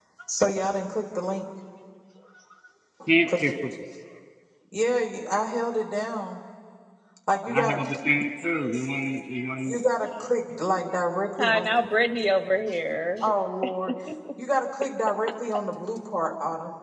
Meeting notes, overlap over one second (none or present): none